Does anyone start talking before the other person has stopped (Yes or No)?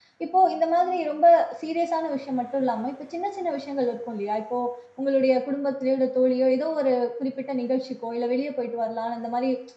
No